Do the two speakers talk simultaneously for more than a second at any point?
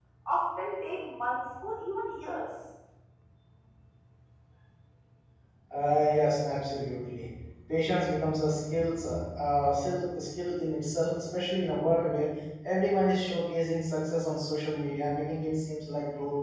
No

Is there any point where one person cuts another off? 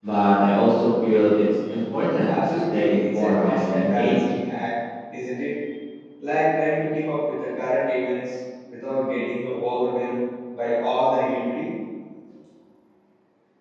Yes, from 2.2 s

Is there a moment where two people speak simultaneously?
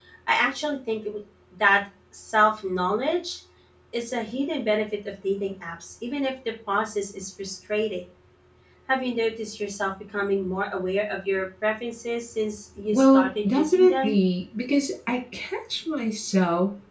Yes, from 12.9 s

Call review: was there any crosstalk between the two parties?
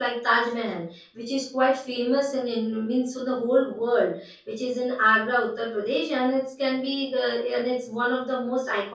No

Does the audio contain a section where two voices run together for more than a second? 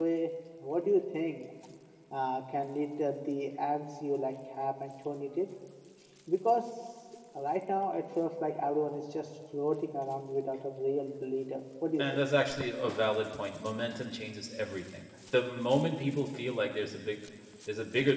No

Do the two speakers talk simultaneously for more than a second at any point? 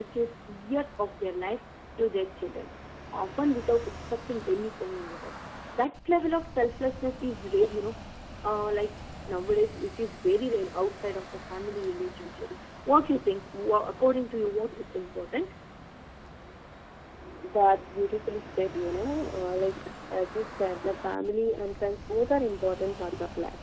No

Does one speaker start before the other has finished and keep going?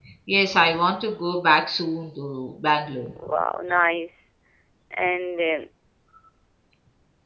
No

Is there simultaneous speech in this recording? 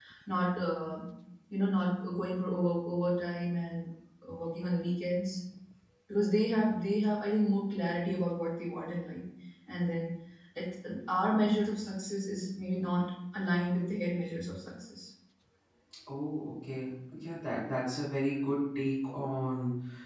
No

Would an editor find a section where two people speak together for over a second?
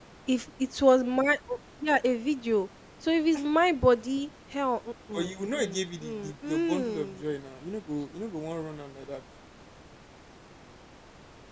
Yes, from 5.1 s

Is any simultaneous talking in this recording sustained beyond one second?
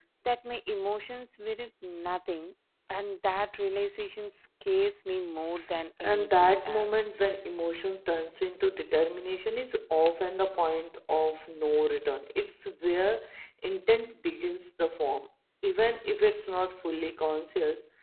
Yes, from 6.0 s

